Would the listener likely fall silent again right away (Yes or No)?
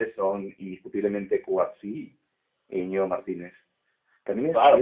No